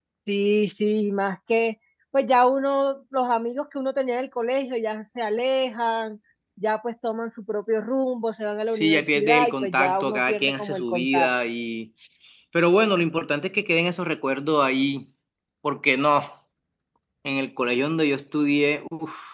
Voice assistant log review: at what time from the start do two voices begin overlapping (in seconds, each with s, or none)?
8.8 s